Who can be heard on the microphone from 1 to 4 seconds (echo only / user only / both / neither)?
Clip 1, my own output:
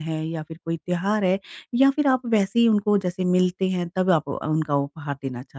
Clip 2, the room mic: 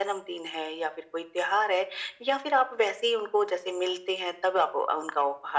echo only